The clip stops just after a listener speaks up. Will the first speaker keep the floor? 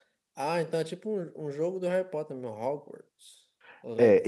No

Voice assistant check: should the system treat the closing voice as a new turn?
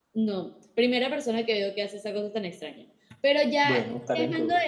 No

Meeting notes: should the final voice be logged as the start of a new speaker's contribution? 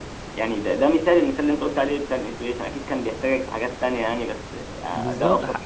Yes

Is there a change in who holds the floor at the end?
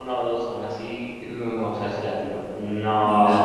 Yes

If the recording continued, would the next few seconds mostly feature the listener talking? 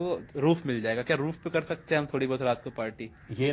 Yes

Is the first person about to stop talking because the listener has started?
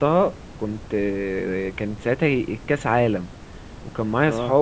No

